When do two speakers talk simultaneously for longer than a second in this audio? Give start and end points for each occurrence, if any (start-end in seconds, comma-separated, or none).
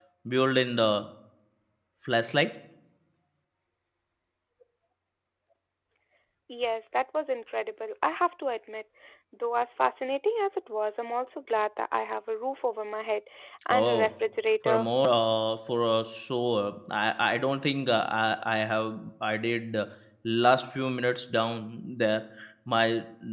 none